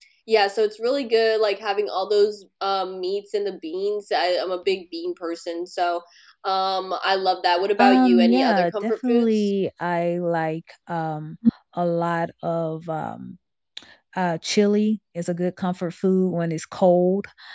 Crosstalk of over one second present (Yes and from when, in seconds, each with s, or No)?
Yes, from 7.8 s